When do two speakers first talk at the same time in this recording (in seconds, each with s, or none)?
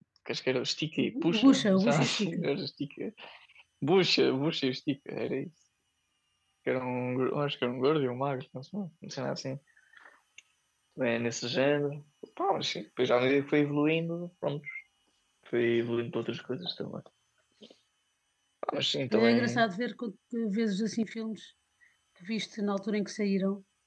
1.0 s